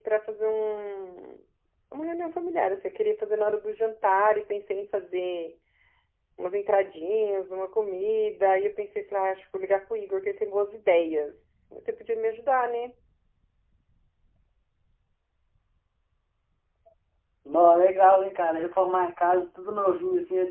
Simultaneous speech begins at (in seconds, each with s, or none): none